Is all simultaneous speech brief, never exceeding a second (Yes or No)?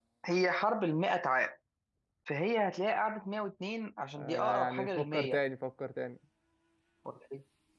No